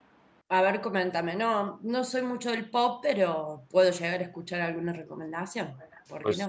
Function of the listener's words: taking over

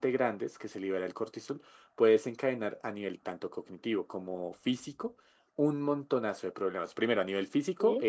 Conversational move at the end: listening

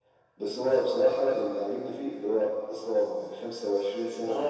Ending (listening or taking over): taking over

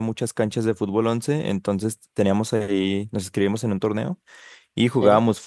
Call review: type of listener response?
listening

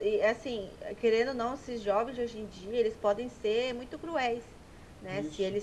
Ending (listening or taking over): listening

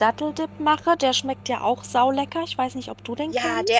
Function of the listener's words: taking over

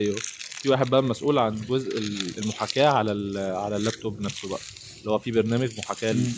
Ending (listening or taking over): listening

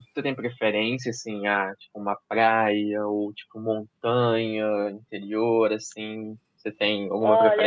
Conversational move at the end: taking over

